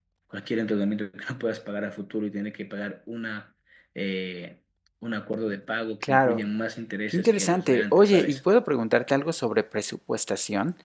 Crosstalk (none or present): present